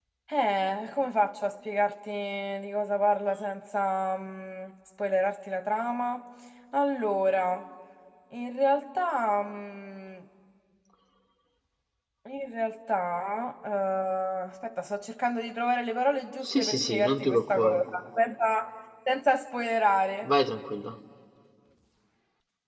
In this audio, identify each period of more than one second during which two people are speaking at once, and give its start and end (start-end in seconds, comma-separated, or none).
16.4-17.8